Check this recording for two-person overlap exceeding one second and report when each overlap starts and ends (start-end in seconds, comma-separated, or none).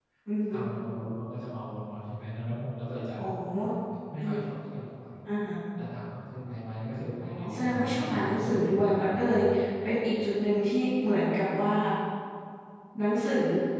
7.2-9.4